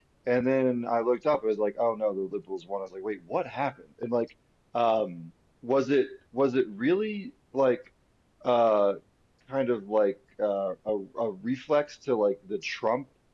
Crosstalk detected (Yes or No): No